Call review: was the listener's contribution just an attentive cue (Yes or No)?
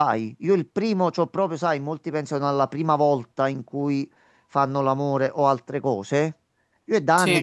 Yes